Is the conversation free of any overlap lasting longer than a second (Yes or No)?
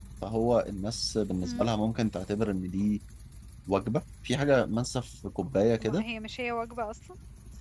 Yes